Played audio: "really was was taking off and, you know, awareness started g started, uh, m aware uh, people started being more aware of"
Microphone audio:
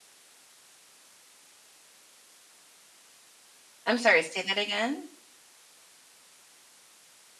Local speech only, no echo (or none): I'm sorry, say that again?